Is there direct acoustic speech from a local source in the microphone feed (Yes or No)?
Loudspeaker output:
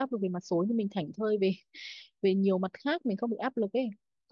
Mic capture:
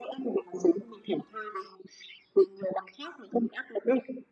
No